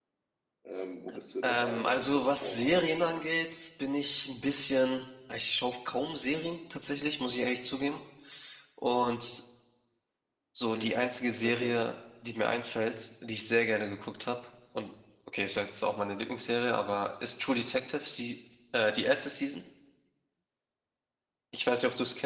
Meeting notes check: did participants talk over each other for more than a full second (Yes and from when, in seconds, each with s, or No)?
Yes, from 1.4 s